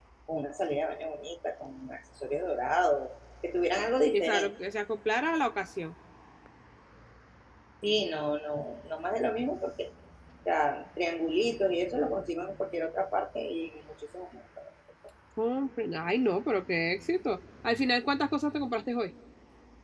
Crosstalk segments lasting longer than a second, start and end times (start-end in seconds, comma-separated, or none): none